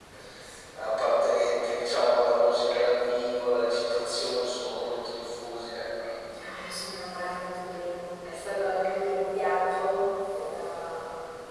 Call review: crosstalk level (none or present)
none